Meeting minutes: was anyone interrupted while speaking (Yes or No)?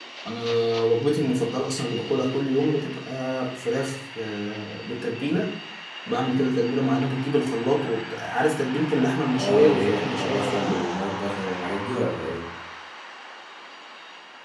Yes